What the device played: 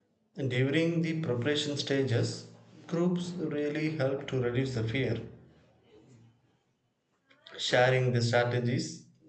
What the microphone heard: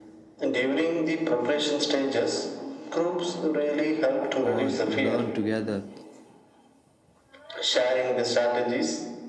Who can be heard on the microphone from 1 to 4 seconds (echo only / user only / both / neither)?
echo only